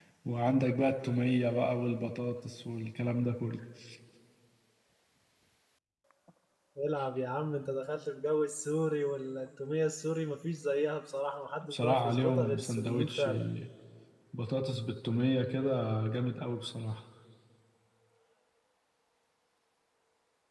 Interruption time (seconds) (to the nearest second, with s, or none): 12 s